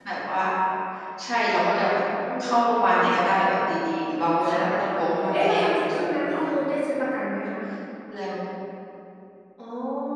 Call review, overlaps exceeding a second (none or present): present